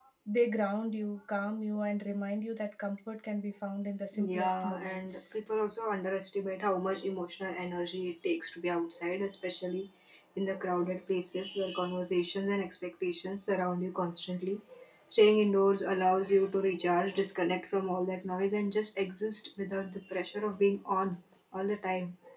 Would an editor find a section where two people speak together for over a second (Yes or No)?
Yes